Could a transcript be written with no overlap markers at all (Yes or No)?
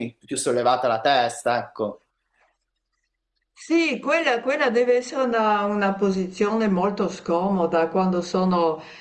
Yes